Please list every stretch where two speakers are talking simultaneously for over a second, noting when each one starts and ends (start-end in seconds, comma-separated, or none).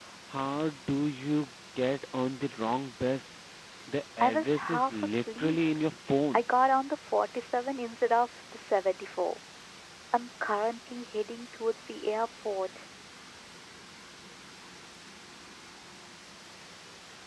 4.2-5.6